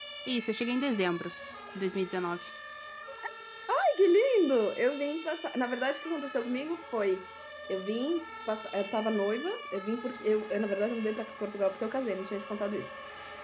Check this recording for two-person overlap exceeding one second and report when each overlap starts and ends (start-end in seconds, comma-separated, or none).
none